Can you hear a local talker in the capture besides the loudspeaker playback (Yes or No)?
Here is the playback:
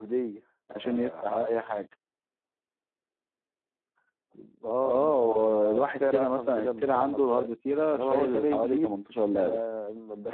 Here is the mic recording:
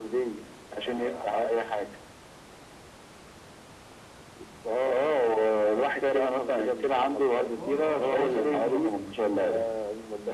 Yes